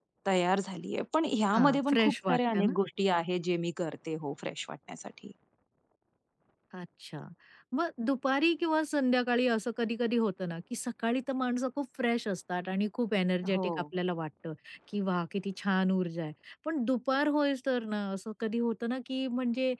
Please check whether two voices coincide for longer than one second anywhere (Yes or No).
Yes